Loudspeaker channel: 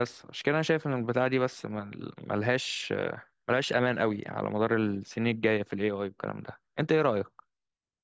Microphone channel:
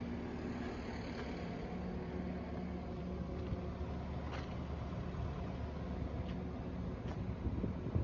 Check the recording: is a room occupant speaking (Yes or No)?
No